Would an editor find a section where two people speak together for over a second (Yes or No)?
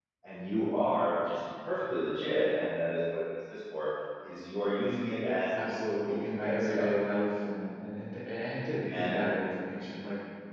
Yes